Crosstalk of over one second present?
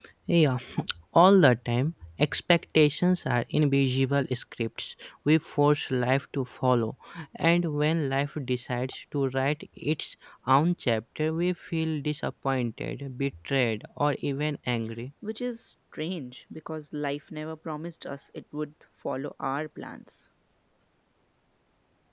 No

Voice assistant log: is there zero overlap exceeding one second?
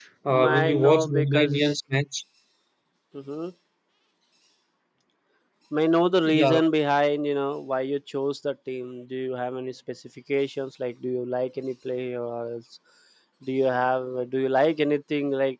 No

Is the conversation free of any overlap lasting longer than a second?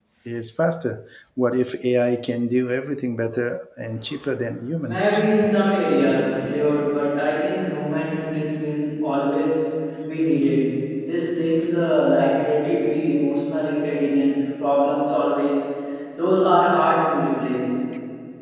Yes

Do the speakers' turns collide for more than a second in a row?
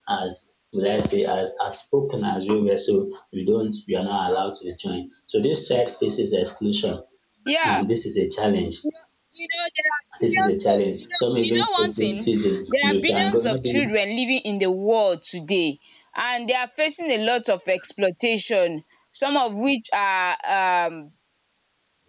Yes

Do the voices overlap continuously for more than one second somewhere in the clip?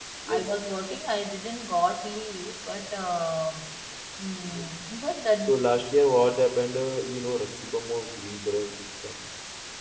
No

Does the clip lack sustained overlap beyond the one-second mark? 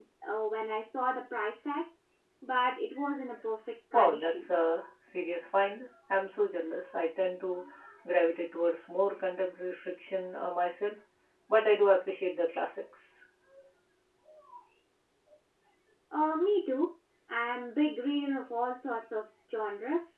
Yes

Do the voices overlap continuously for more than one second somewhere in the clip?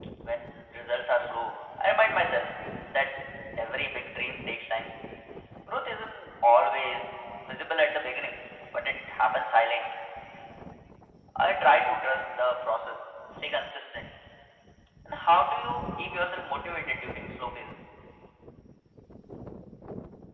No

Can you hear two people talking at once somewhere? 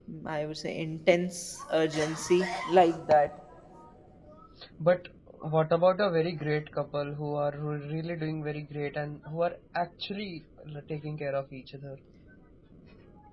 No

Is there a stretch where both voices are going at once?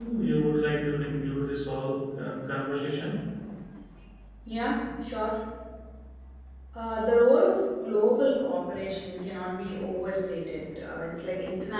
No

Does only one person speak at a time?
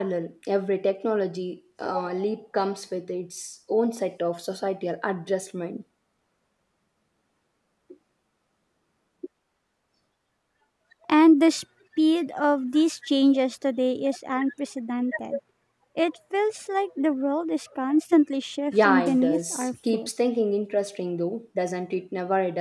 No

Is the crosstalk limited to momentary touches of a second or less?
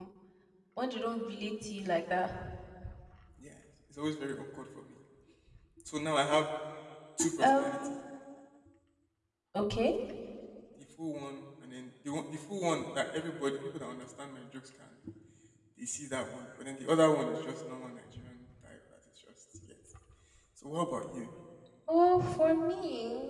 Yes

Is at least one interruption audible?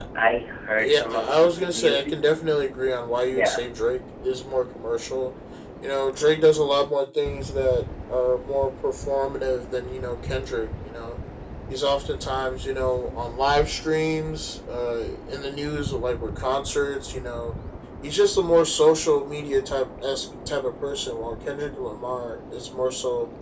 Yes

